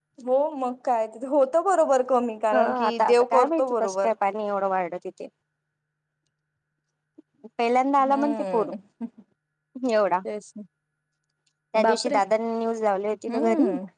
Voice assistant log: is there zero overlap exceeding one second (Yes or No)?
No